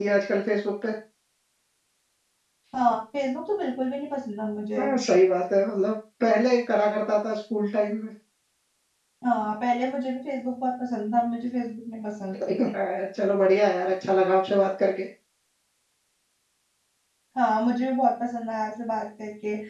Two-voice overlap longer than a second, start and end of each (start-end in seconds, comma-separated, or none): none